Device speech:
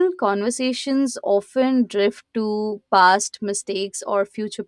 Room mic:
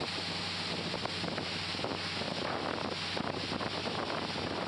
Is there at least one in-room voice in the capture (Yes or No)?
No